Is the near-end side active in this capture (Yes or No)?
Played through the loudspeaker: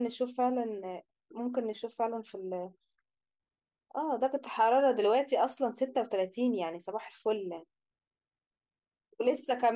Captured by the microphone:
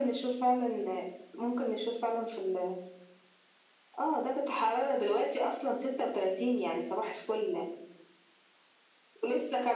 No